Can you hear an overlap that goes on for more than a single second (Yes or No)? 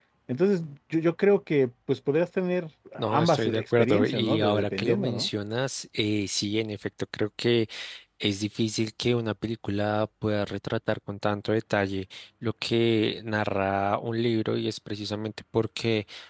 Yes